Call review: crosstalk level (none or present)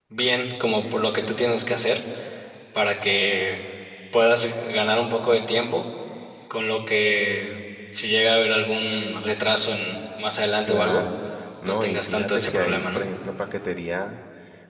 present